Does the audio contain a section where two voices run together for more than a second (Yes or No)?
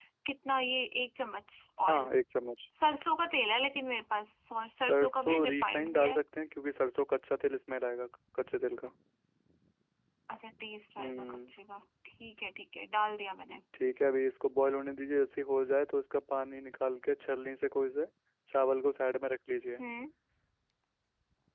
Yes